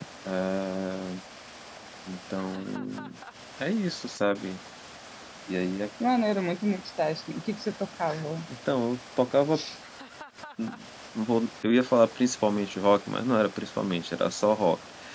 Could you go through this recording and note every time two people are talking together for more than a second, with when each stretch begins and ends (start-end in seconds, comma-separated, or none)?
none